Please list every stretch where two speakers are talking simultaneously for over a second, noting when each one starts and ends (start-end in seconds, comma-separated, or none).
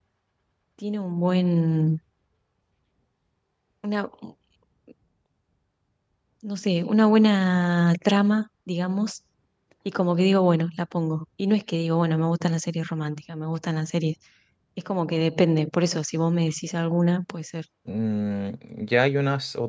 none